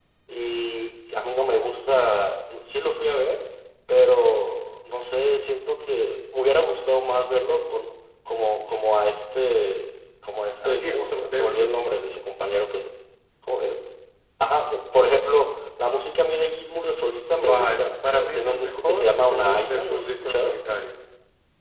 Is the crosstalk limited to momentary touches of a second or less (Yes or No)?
No